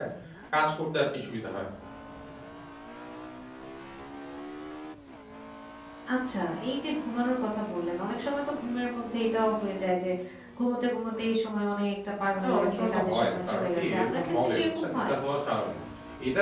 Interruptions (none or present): present